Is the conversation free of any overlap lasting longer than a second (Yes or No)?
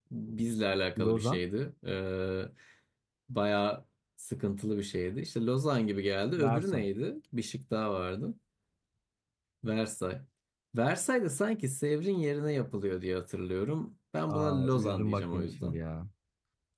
No